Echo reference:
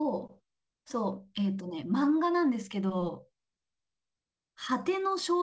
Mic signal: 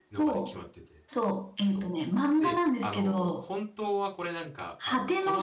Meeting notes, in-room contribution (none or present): present